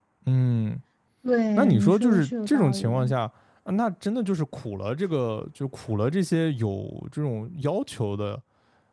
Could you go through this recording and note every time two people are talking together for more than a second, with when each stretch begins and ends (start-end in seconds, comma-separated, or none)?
1.6-3.1